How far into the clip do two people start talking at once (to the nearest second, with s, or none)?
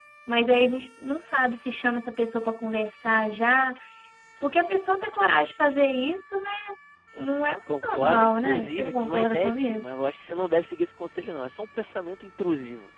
8 s